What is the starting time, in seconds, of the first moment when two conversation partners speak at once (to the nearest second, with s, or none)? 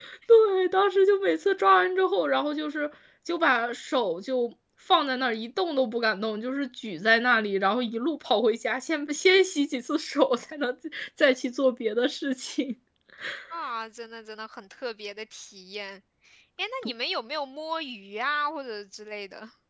none